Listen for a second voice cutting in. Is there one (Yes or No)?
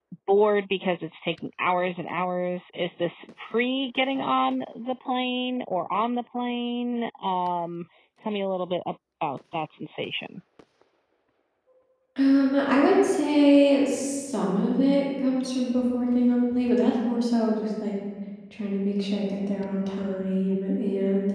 No